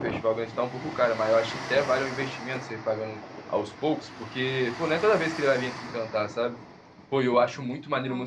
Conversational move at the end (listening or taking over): listening